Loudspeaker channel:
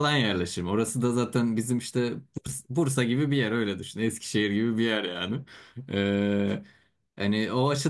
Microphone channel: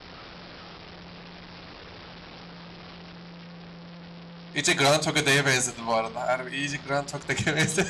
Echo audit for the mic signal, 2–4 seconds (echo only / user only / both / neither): neither